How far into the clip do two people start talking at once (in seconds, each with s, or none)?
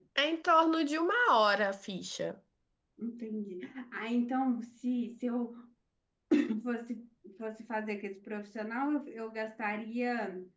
none